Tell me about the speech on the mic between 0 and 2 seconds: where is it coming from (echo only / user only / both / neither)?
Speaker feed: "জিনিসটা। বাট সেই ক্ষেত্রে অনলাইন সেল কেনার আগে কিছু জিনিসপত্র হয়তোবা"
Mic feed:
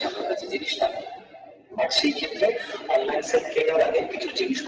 echo only